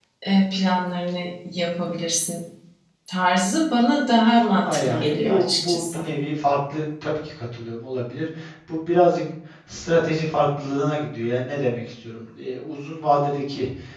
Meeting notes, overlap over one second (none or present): present